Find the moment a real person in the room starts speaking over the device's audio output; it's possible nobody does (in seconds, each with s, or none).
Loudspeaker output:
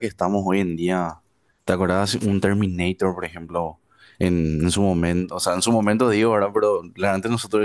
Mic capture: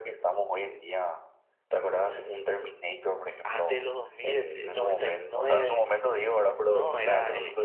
3.4 s